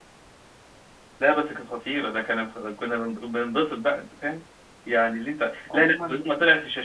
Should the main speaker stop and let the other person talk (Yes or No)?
No